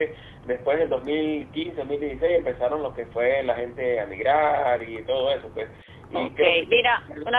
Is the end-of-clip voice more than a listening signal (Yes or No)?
Yes